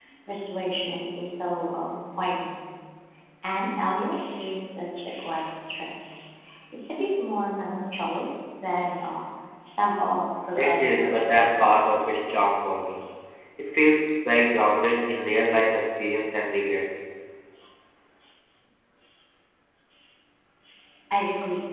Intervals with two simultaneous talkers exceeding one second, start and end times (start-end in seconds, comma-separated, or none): 10.6-12.2